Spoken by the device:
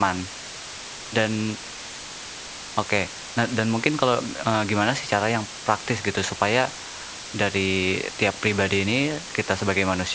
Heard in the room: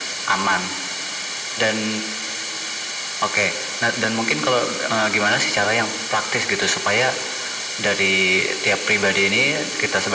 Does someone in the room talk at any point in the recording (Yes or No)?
No